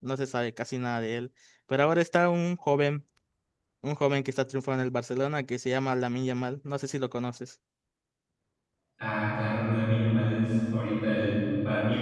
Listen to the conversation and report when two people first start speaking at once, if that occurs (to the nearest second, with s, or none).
none